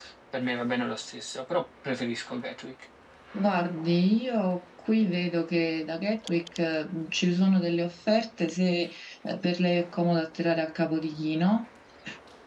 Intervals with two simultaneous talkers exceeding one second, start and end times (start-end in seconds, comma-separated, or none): none